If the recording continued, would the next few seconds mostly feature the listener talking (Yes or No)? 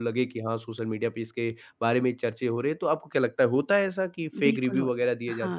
Yes